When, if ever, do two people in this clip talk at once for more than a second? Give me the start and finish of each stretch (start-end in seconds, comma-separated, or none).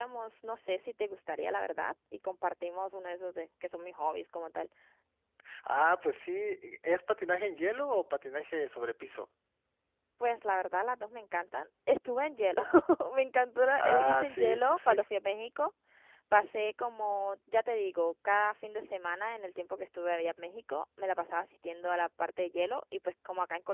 13.8-15.0